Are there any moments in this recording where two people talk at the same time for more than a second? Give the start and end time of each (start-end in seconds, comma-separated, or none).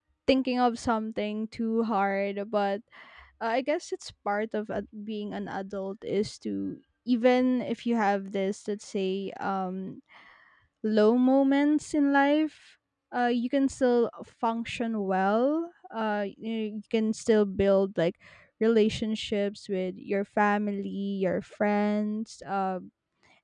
none